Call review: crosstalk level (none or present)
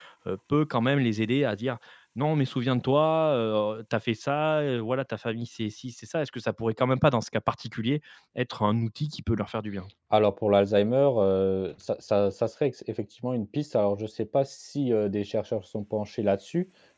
none